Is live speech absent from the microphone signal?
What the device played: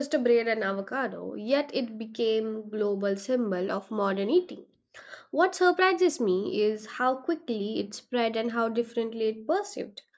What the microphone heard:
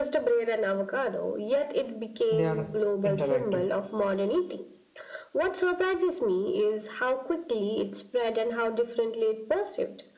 No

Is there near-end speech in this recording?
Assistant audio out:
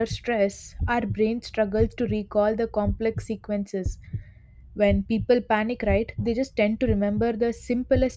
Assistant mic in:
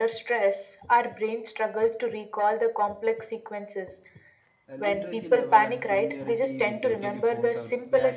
Yes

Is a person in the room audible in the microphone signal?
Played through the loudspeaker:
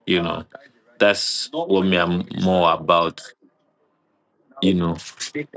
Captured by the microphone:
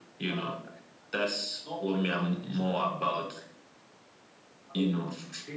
No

